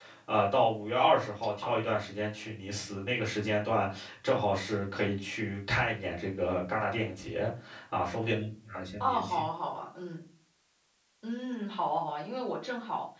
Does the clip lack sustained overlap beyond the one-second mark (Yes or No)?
Yes